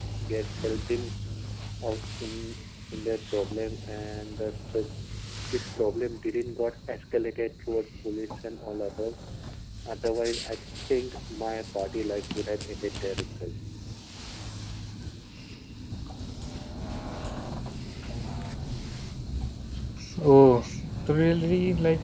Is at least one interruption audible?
No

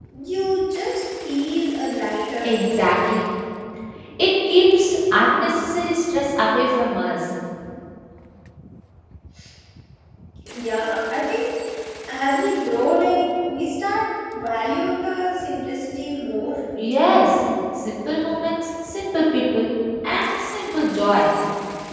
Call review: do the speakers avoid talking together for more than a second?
Yes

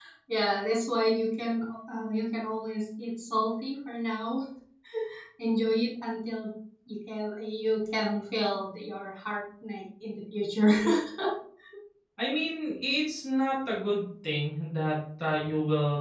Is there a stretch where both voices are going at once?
No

